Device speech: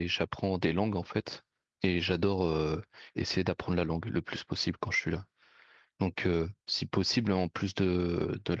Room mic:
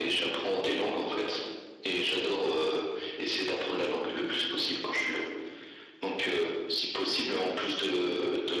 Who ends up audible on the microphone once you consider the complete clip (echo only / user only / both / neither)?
echo only